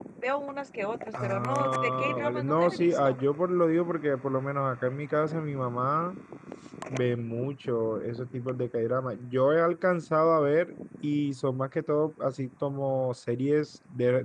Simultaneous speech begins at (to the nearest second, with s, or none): 1 s